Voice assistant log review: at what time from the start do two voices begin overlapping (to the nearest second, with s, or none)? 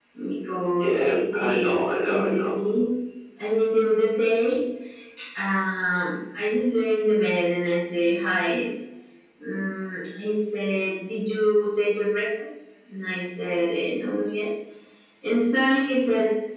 1 s